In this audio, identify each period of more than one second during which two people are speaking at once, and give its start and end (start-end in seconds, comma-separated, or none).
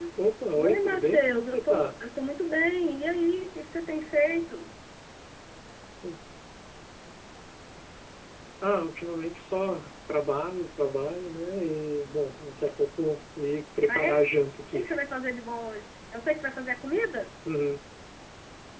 0.6-1.9